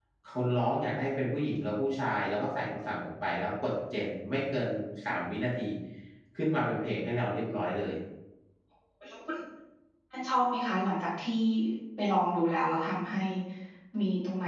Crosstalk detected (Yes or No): No